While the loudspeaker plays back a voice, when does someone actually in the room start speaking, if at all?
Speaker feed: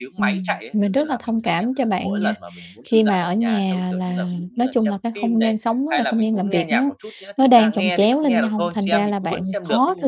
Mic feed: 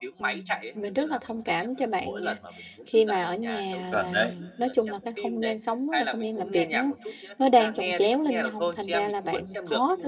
3.9 s

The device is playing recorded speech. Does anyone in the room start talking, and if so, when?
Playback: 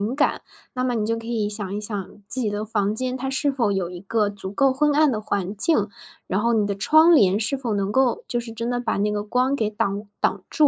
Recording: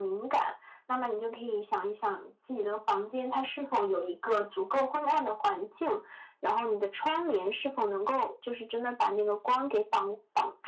none

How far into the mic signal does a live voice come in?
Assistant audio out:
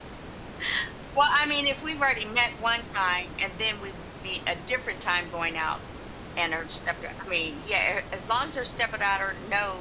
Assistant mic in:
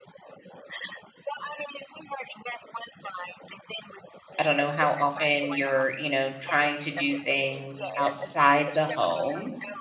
4.4 s

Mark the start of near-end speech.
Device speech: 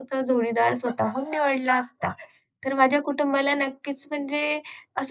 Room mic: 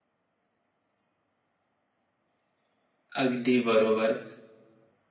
3.2 s

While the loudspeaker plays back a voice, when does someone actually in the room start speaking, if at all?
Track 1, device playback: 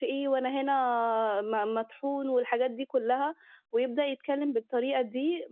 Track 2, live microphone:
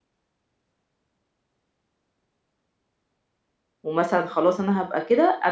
3.8 s

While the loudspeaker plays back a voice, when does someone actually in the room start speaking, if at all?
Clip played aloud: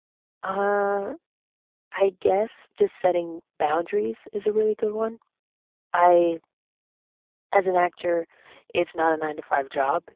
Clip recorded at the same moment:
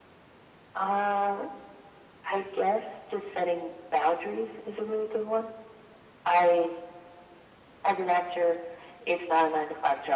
none

